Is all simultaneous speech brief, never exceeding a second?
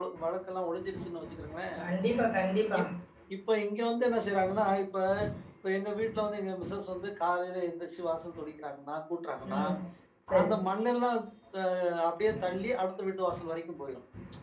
Yes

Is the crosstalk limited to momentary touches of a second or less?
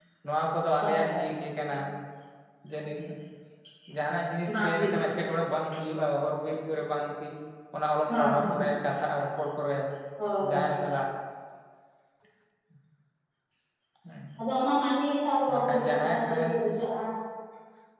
No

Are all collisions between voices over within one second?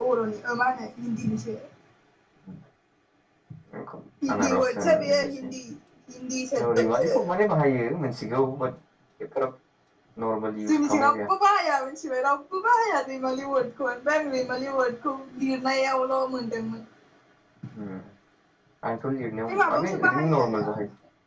No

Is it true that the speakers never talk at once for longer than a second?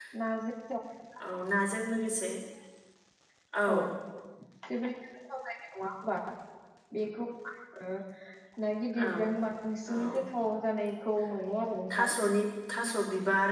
Yes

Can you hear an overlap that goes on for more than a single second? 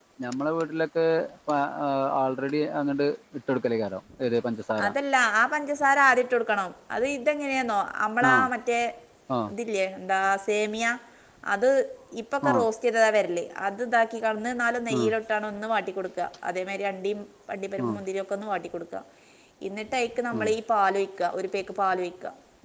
No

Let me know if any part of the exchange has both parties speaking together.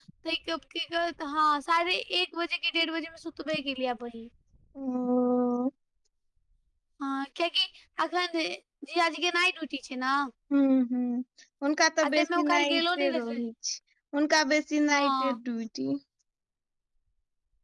Yes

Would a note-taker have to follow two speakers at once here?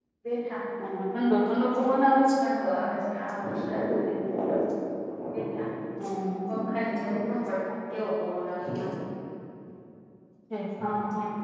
No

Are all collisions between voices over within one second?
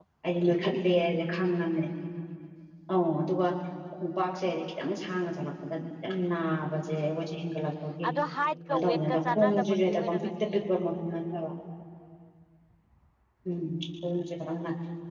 No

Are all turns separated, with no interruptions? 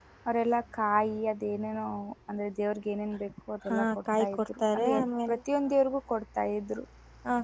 No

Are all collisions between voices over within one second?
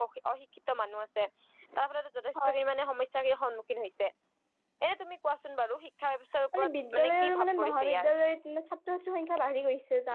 No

